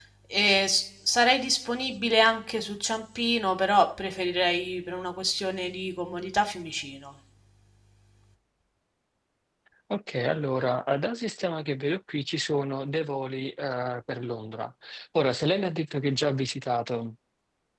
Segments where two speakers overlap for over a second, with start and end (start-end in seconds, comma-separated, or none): none